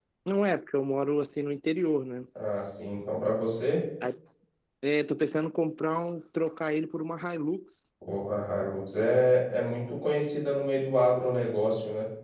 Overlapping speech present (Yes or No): No